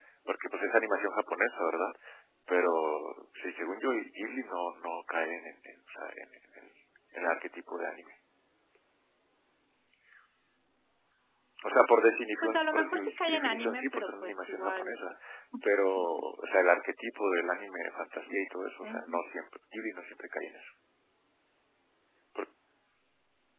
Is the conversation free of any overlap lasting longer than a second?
No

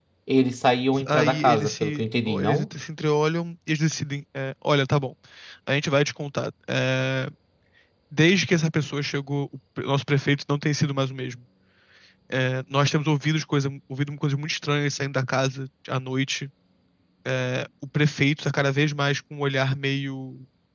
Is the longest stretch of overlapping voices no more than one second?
No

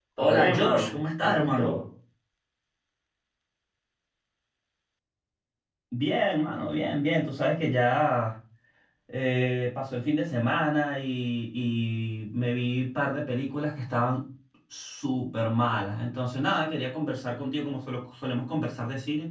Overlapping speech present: Yes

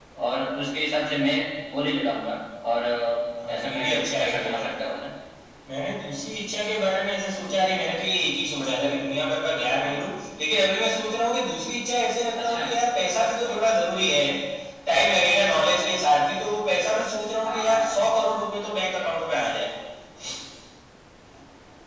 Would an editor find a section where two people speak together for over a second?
Yes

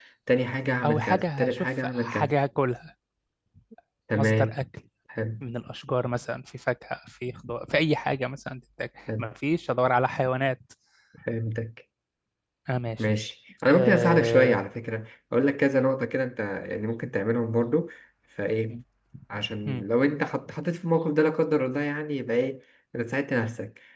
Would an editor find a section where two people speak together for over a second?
Yes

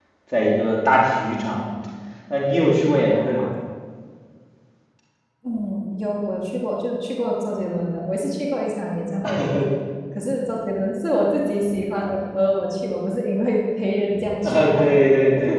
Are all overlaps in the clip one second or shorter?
Yes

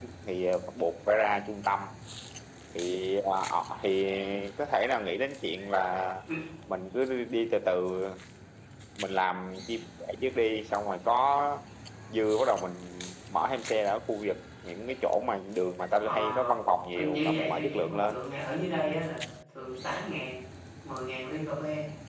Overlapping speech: Yes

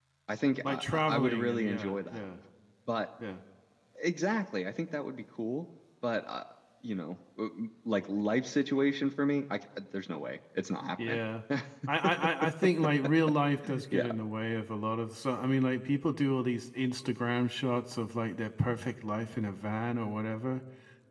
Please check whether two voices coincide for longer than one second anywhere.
Yes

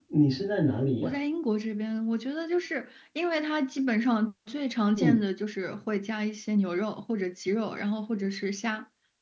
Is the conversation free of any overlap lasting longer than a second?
Yes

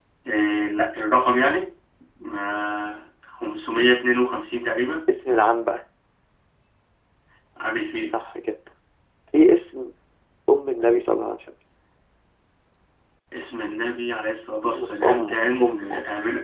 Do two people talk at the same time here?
Yes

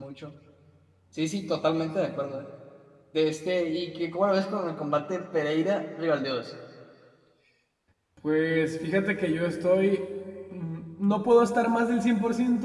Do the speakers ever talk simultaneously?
No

